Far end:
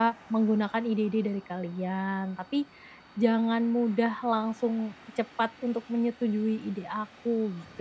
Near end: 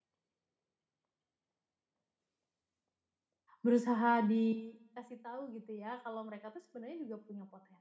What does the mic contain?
user only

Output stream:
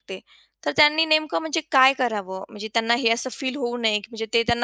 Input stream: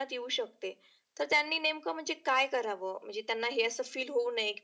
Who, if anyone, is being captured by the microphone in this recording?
echo only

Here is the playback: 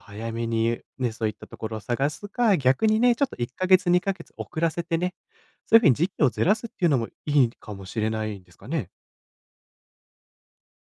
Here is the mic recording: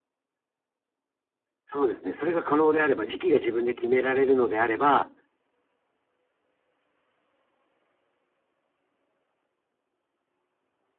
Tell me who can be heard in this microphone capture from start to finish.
user only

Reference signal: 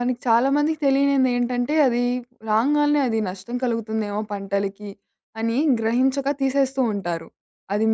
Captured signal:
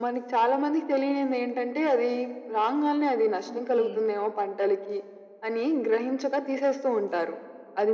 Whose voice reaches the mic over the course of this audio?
both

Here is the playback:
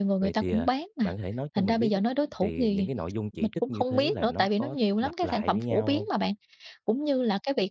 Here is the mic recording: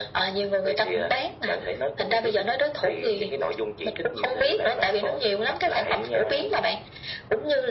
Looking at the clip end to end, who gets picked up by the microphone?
echo only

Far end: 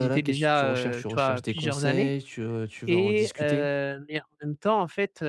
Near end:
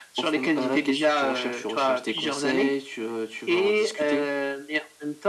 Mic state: echo only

